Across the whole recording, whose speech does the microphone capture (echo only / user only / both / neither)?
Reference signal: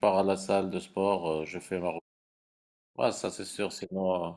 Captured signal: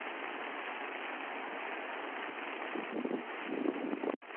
neither